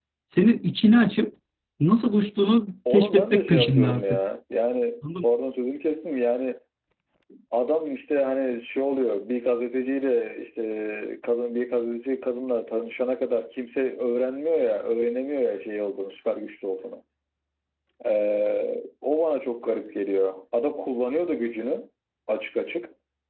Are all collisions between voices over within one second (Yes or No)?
No